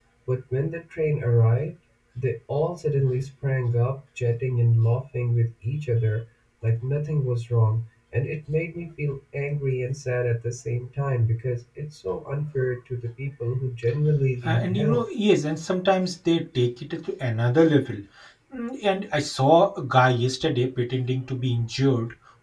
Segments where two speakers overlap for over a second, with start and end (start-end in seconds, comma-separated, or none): none